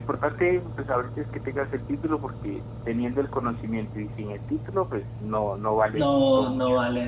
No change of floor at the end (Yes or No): No